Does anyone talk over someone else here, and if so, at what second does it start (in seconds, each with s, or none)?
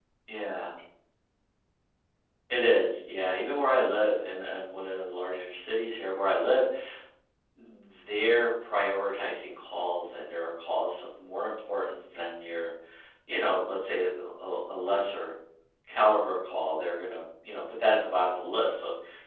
none